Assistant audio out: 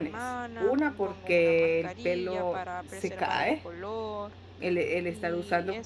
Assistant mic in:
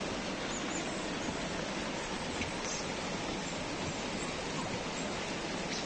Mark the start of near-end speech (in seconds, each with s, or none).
none